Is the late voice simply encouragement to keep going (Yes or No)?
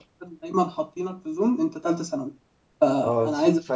No